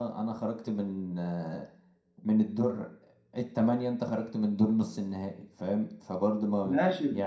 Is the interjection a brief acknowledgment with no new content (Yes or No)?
No